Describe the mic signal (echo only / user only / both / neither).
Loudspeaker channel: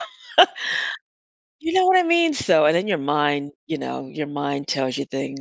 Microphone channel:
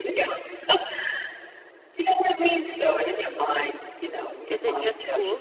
both